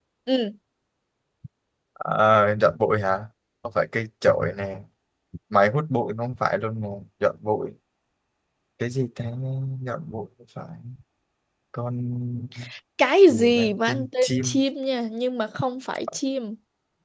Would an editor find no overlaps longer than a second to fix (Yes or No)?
No